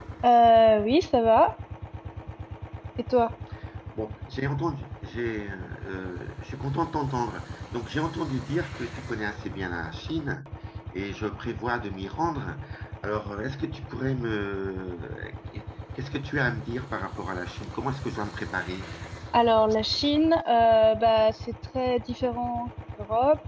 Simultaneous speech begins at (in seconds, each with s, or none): none